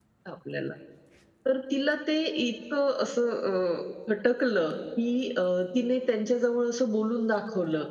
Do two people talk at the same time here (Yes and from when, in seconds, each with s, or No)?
No